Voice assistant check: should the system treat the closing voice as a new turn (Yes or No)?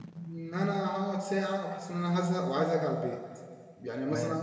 No